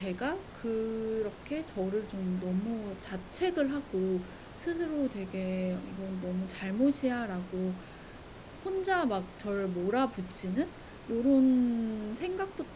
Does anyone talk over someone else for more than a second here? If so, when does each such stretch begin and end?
none

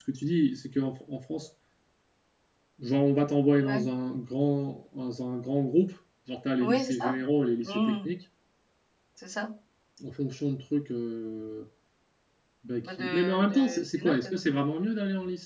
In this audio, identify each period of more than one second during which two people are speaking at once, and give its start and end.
12.8-14.3

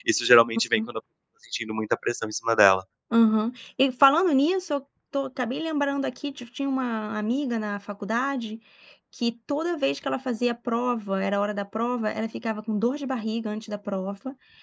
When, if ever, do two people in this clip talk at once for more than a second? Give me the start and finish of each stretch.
none

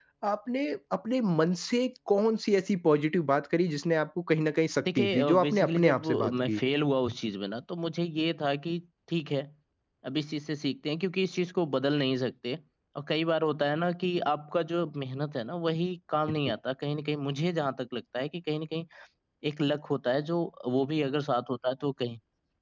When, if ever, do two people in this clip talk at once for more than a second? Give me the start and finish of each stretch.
4.8-6.6

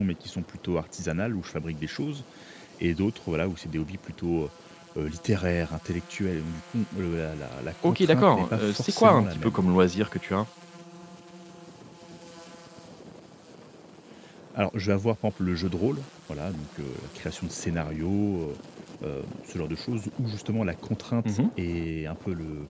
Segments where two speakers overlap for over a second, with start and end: 7.8-9.6

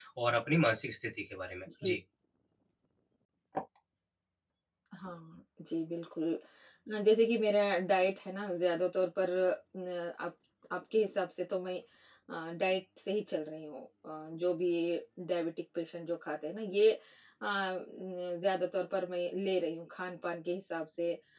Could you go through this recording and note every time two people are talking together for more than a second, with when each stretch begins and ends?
none

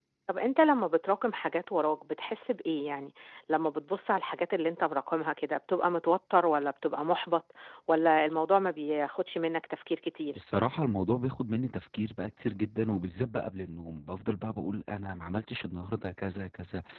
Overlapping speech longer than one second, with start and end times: none

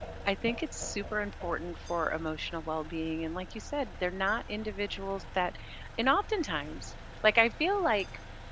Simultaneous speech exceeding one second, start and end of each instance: none

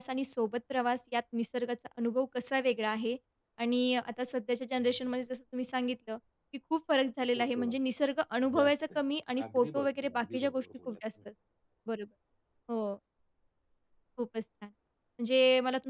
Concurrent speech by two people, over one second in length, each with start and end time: 9.5-11.0

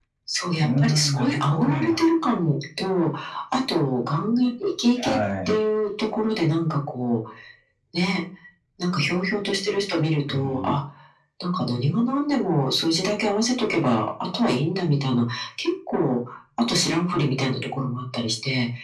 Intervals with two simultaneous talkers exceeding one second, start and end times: 0.6-2.0

